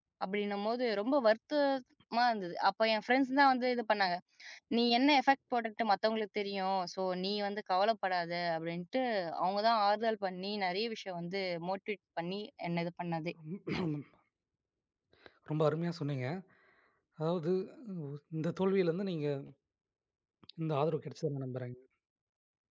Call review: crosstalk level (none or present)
none